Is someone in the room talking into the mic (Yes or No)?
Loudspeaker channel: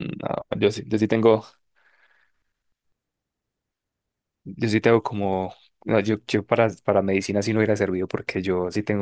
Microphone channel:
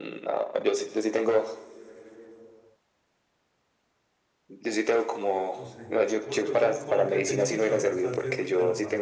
Yes